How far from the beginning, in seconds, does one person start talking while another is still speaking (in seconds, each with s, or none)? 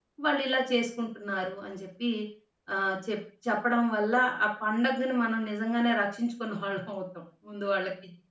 none